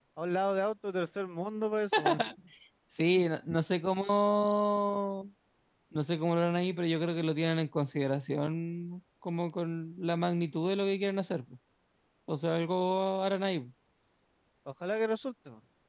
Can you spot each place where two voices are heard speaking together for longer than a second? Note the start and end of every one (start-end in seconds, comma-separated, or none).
none